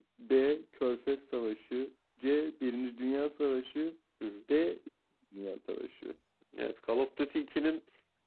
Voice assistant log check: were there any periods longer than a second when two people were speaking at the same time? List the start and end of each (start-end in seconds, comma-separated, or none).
none